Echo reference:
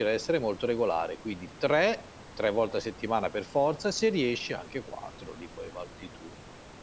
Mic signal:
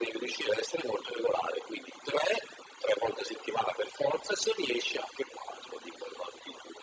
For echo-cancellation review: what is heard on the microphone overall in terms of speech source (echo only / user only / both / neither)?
echo only